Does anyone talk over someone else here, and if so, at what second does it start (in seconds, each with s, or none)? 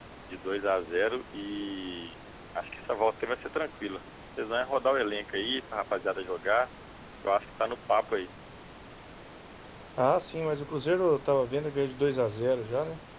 none